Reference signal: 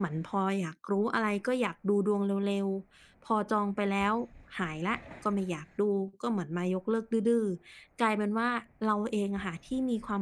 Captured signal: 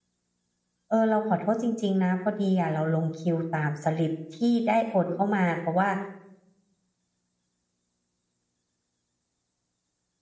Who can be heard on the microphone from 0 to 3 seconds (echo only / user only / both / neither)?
user only